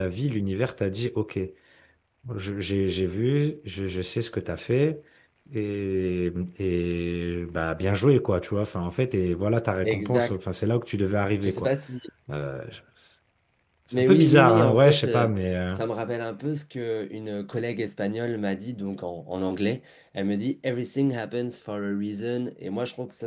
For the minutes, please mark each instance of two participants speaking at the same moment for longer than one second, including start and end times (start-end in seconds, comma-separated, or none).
13.9-15.3